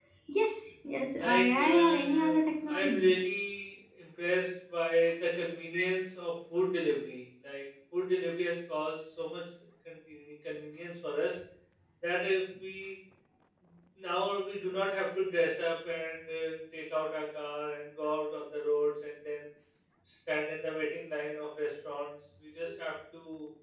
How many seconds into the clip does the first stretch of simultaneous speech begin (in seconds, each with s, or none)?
1.2 s